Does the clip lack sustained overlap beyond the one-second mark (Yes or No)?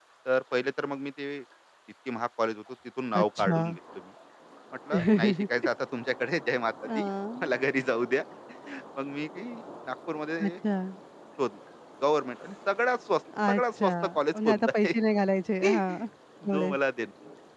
No